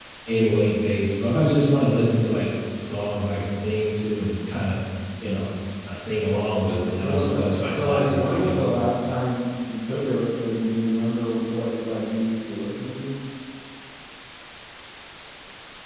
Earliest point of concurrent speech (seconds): 6.8 s

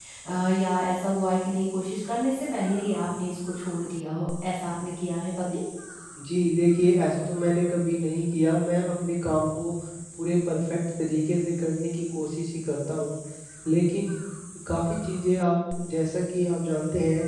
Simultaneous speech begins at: none

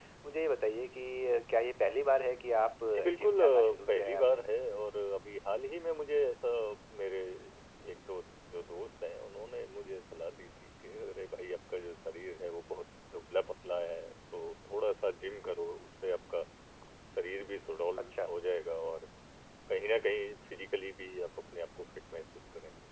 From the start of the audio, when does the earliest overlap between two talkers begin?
3.2 s

